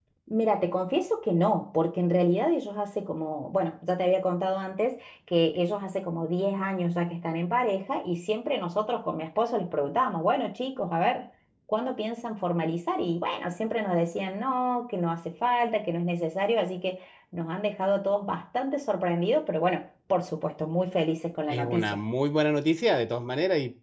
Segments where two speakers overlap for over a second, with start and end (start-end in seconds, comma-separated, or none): none